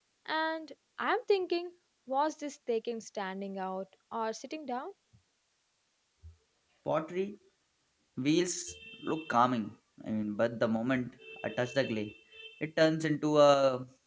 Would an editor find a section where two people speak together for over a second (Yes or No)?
No